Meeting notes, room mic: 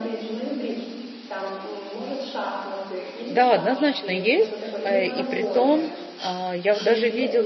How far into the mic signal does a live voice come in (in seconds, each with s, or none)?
3.3 s